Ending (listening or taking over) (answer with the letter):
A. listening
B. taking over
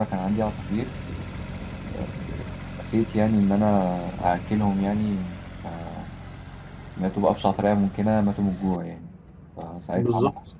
A